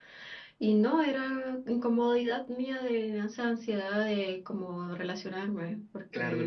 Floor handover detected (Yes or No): Yes